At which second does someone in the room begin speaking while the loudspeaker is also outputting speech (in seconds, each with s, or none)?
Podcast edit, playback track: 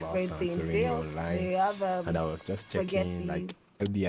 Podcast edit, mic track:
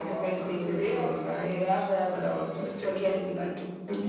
none